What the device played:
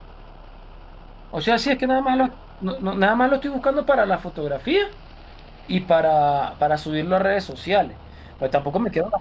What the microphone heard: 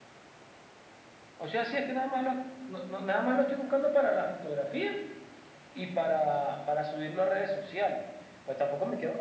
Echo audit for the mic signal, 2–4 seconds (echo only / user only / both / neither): echo only